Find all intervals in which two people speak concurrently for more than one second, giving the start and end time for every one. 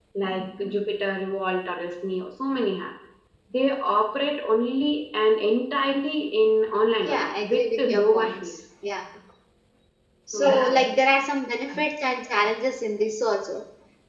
7.0-8.5

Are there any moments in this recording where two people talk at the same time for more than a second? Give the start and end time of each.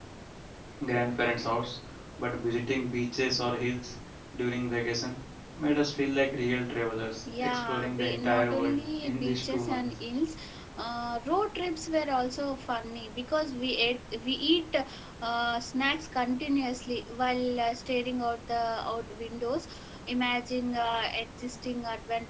7.3-9.9

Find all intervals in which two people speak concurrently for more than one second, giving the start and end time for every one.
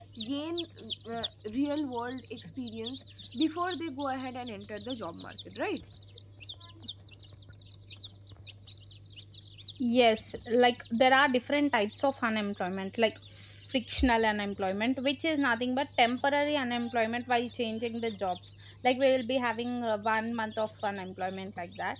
none

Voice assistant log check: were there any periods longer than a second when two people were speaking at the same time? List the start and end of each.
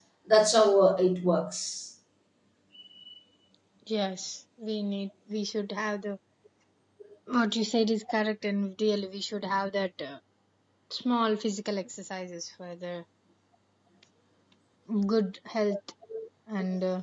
none

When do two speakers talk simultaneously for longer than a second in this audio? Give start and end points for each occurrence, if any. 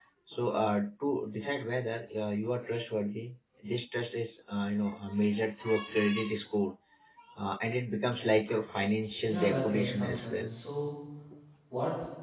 9.3-10.5

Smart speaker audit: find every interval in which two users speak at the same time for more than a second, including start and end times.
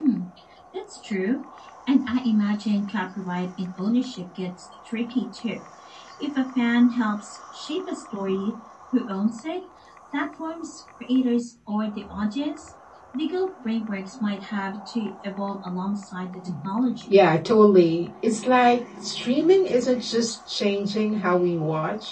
none

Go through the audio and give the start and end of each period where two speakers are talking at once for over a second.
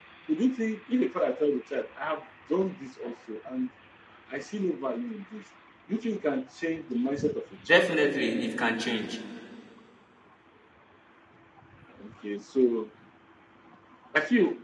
none

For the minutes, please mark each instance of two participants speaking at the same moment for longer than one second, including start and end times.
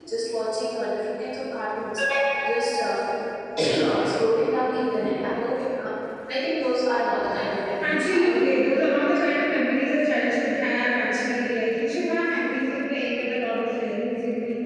7.8-9.4

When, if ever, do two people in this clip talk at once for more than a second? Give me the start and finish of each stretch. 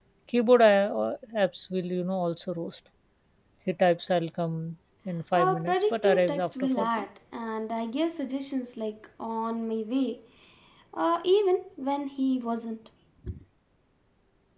5.3-7.0

